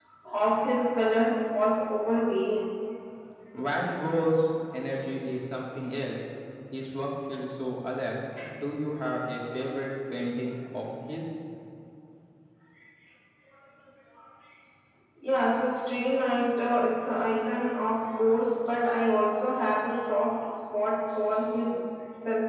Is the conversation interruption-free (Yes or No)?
Yes